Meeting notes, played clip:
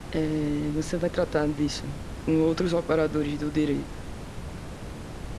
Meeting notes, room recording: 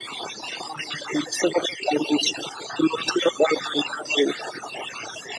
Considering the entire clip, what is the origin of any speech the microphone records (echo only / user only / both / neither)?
echo only